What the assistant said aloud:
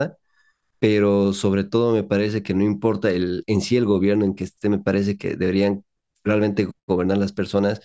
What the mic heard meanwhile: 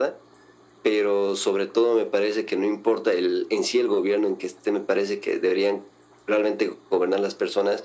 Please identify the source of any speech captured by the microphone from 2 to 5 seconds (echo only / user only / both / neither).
echo only